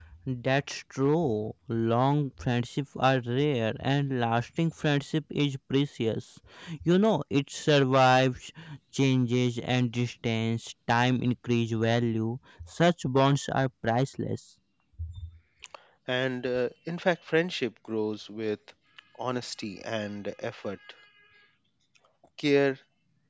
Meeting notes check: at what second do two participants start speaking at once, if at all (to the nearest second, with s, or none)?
none